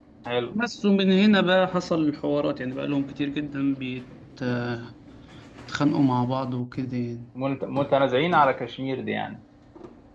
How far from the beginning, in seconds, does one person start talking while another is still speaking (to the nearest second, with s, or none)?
none